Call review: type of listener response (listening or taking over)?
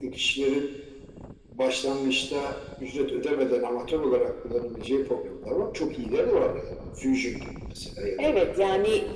taking over